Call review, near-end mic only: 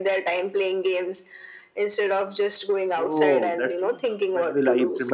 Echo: present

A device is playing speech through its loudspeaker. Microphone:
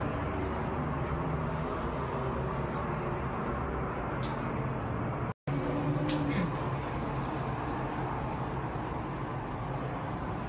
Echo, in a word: none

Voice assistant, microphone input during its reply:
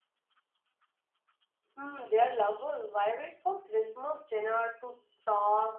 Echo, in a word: none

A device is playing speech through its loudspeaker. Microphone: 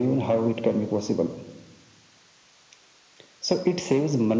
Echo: present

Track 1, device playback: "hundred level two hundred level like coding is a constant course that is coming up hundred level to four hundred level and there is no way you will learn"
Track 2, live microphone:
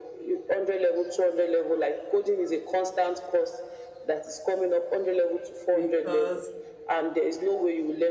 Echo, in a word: present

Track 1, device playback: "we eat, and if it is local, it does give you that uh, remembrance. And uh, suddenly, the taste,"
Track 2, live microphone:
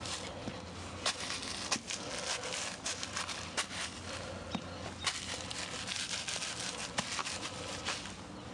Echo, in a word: none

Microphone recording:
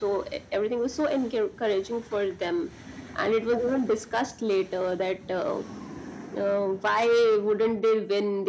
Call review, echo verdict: present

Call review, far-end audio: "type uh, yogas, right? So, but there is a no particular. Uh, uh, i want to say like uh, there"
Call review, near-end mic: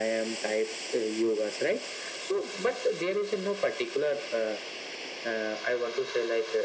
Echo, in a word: present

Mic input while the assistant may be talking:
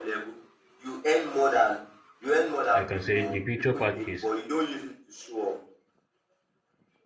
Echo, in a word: present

